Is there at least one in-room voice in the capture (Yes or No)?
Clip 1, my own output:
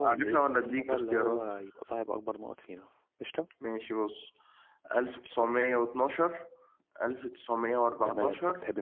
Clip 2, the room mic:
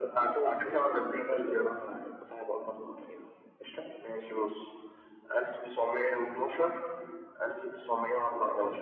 No